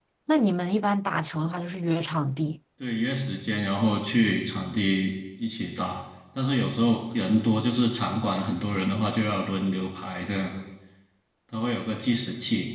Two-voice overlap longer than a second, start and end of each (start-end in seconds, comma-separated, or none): none